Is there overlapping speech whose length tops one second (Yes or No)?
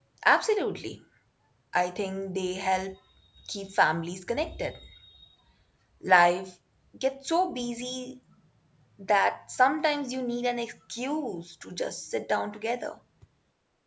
No